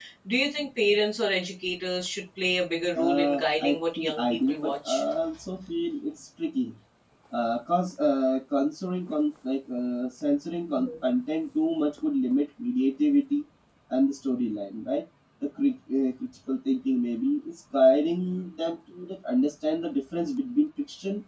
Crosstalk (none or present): present